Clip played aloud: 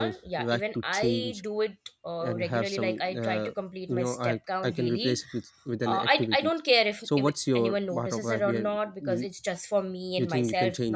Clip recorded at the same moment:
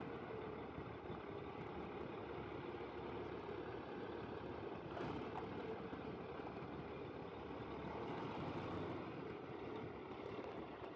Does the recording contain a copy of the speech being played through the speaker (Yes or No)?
No